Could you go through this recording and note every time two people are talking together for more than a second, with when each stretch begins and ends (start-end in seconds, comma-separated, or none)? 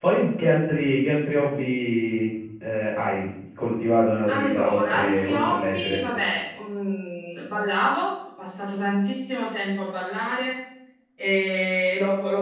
4.3-6.0